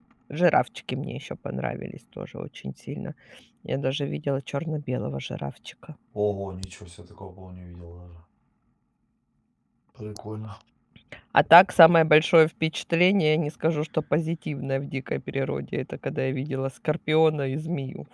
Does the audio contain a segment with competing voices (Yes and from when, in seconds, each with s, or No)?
No